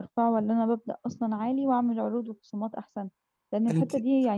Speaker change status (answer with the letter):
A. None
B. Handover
A